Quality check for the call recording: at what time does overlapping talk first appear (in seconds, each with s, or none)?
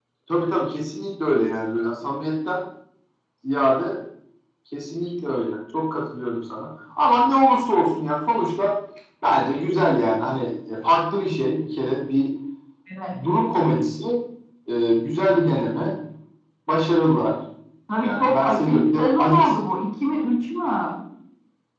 18.0 s